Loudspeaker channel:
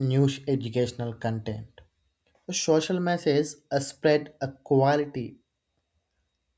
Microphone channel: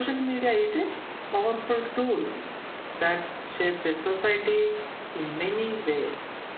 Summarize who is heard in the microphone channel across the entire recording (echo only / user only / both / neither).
user only